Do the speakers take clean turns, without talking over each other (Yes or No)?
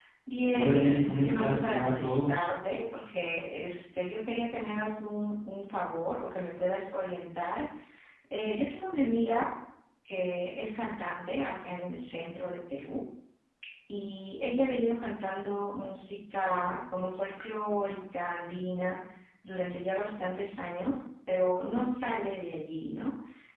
No